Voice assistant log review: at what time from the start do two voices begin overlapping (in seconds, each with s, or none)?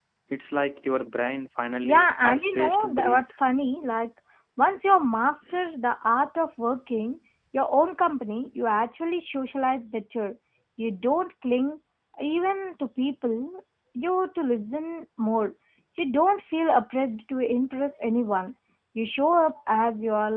1.8 s